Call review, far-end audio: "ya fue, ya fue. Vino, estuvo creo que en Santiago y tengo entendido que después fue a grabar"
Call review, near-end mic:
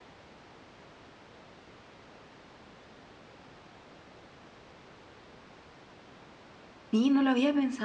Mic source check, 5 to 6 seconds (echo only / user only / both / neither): neither